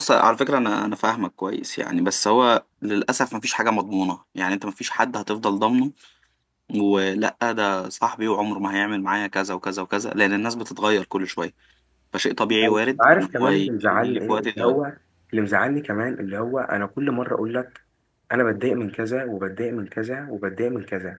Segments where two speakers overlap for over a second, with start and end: 12.6-14.8

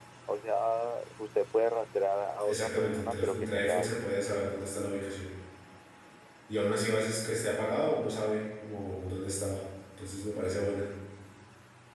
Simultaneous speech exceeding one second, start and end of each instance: 2.5-3.9

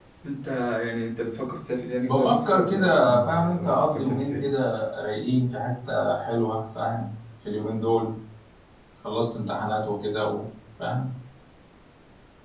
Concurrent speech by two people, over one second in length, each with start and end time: 2.1-4.5

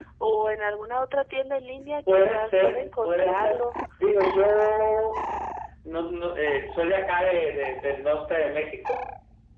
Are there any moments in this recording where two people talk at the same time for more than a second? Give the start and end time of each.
2.1-3.6

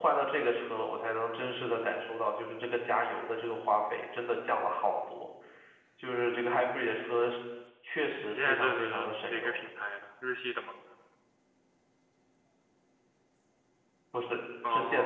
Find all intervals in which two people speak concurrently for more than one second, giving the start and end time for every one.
8.3-9.6

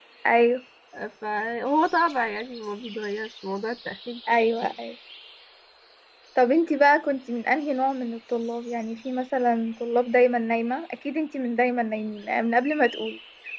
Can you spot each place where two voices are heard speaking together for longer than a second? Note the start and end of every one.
none

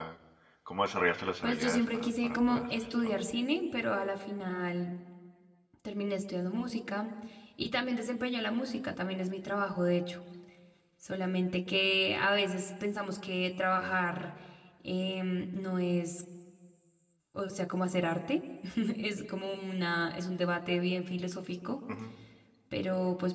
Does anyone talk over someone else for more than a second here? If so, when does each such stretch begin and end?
1.4-3.1

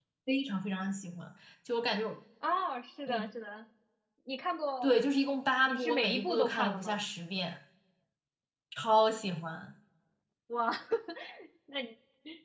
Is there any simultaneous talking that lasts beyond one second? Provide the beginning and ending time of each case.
5.7-7.0

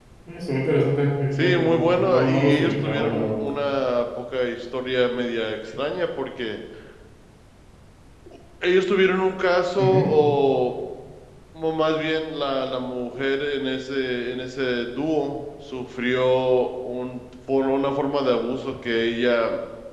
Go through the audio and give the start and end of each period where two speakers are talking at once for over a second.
1.4-3.5

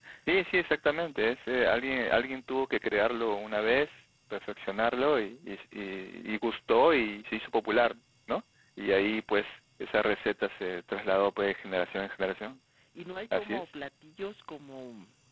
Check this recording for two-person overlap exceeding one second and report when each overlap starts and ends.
none

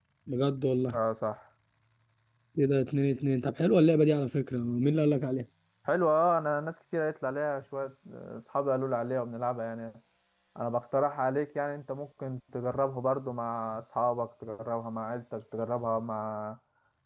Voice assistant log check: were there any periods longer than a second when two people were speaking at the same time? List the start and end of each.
none

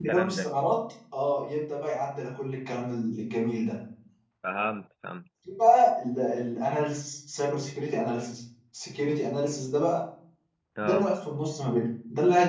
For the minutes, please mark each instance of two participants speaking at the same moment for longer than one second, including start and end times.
none

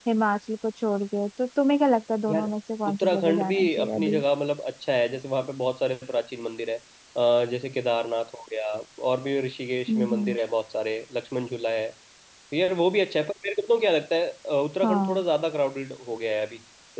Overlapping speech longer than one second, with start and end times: 2.9-4.2

